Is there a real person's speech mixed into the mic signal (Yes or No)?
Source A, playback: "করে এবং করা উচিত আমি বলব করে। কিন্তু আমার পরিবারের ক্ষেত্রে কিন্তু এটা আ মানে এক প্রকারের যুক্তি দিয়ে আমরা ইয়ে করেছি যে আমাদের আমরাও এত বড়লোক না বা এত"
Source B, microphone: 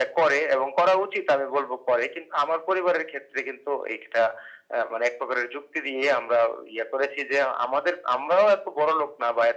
No